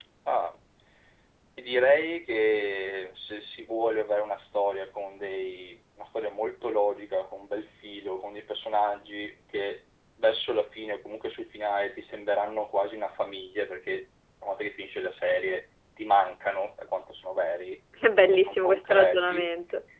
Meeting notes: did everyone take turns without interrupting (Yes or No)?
No